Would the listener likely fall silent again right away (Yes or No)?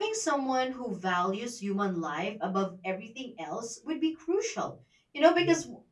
Yes